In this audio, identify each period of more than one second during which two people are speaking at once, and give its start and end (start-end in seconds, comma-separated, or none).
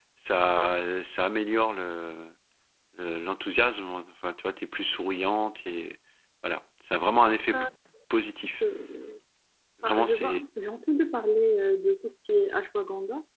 none